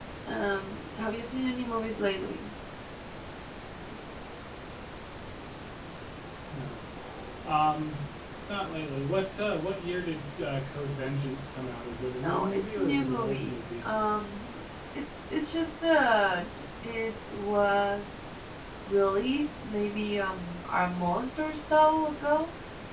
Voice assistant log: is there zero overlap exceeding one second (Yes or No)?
No